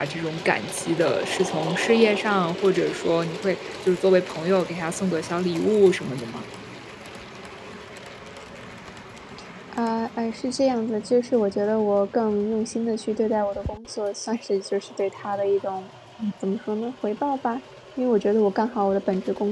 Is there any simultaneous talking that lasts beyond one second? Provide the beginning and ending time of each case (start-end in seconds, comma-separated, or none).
none